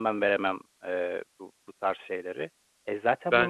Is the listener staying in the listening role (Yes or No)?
Yes